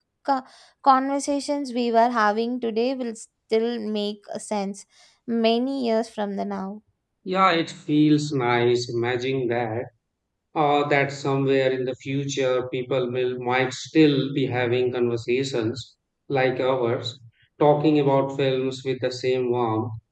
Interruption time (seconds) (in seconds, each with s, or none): none